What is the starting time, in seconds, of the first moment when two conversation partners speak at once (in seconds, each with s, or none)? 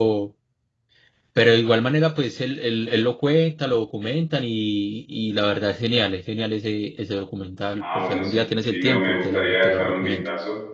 7.8 s